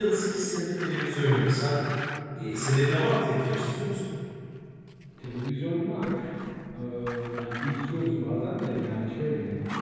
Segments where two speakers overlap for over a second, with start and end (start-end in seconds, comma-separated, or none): none